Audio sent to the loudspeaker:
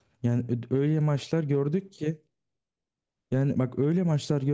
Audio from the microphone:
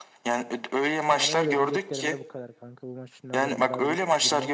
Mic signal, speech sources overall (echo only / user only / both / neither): both